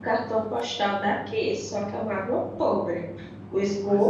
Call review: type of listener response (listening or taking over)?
listening